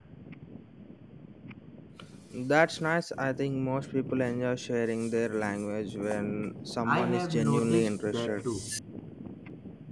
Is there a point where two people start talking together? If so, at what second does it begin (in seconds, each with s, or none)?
6.8 s